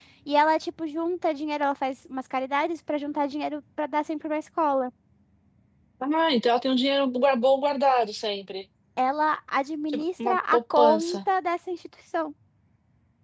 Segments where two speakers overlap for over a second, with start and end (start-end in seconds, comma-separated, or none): 9.9-11.2